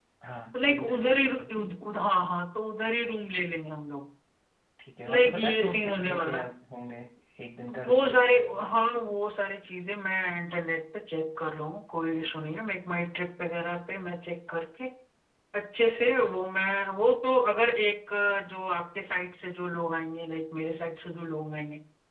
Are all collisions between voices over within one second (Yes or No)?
No